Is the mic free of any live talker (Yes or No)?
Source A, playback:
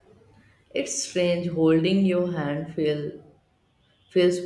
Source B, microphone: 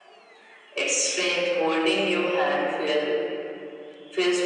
Yes